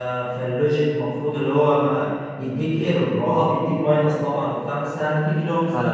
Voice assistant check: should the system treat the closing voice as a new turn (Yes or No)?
No